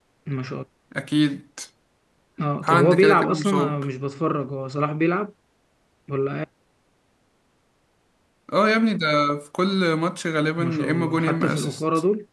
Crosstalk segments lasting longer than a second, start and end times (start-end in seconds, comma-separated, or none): 2.6-3.8, 10.6-11.8